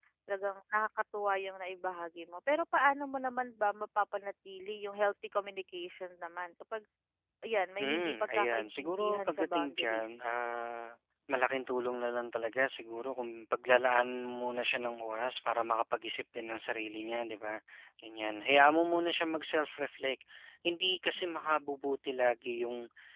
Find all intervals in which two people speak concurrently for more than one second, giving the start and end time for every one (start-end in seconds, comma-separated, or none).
7.8-10.1